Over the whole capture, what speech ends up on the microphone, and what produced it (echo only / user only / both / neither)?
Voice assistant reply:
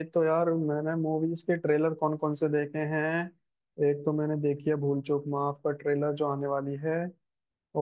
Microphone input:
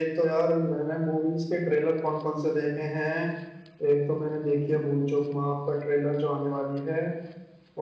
echo only